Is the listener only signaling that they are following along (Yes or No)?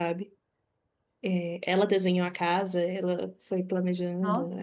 Yes